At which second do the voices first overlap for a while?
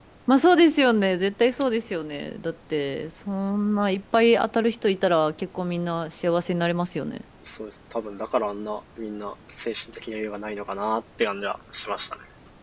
none

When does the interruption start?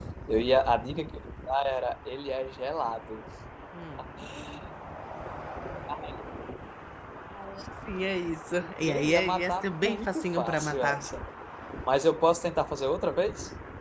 8.6 s

